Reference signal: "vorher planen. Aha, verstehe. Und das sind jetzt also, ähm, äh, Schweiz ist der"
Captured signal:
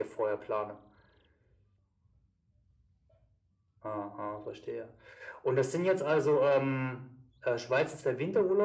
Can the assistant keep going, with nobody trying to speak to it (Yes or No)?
Yes